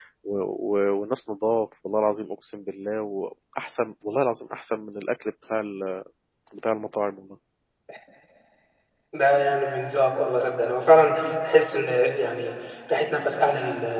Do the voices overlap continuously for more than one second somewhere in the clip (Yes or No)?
No